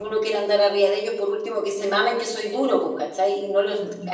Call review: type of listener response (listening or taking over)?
listening